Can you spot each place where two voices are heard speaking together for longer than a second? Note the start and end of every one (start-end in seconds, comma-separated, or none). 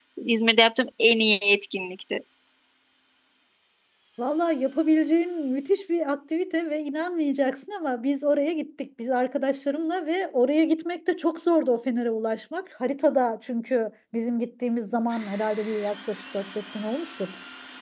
none